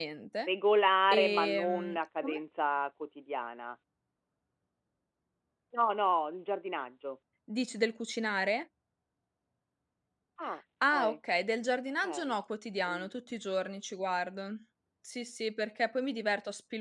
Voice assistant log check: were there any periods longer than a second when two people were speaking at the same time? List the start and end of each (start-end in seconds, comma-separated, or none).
1.1-2.4